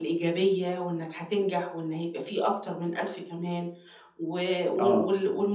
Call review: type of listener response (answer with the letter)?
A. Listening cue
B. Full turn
A